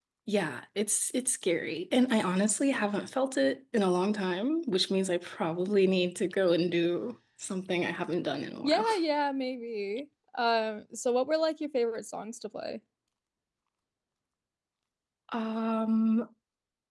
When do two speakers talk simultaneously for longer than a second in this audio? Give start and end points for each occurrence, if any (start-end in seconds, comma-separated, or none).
none